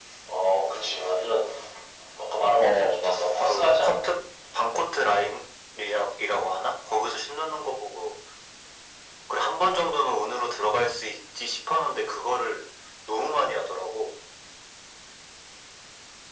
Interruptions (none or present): present